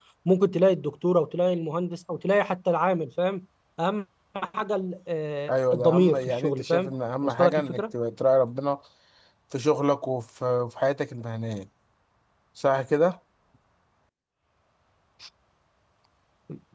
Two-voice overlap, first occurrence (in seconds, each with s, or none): 5.5 s